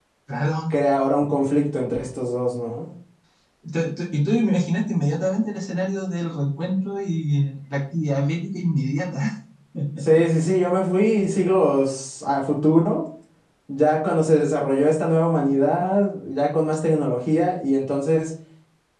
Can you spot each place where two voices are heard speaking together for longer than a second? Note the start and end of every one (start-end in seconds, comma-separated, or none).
none